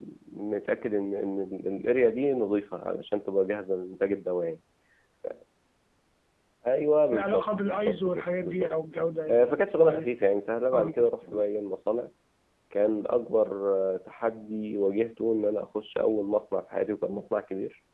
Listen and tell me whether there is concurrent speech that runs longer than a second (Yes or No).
Yes